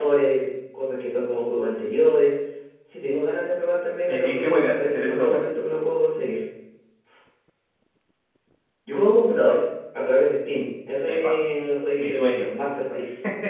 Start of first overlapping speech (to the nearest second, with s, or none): 4 s